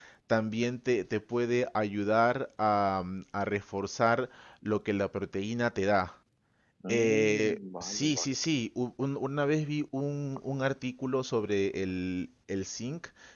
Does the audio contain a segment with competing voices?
Yes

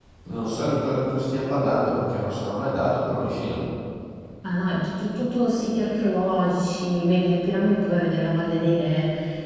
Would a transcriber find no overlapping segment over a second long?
Yes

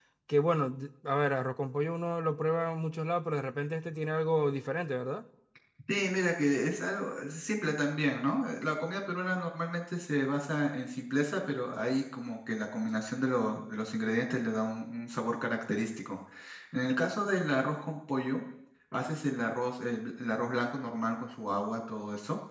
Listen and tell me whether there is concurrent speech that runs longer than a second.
No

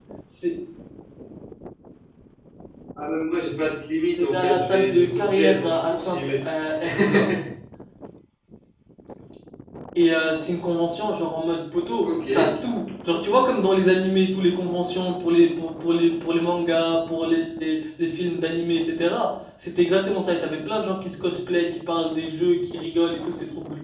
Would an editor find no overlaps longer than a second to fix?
No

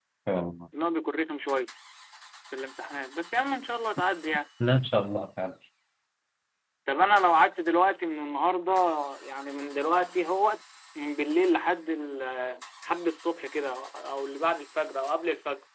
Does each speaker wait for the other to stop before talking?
Yes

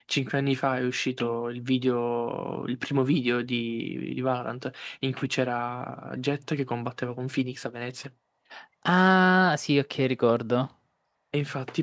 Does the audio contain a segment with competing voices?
No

